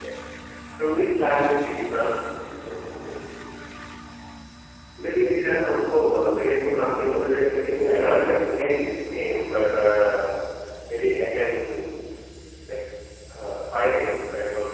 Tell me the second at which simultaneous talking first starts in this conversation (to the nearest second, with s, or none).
7 s